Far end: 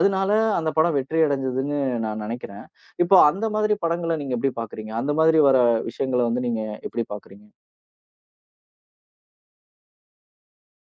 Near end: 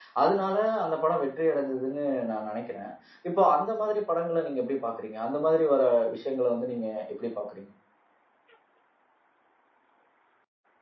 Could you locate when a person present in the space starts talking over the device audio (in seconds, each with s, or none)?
none